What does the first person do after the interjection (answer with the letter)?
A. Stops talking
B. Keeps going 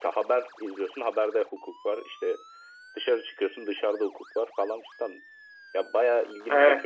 A